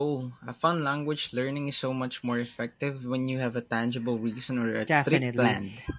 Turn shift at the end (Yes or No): Yes